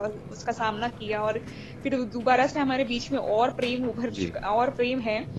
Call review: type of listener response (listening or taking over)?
listening